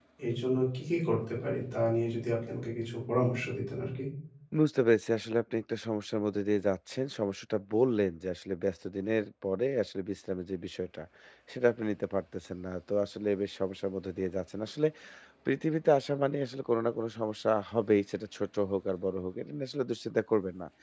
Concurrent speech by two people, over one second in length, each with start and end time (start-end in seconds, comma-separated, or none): none